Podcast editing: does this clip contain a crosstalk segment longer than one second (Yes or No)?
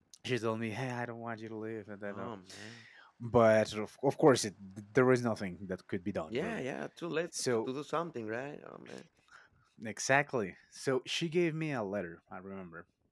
No